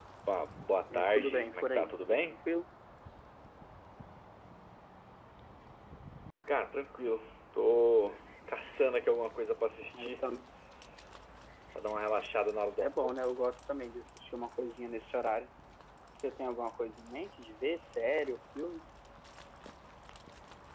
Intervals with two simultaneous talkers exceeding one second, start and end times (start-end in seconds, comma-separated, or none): 0.9-2.4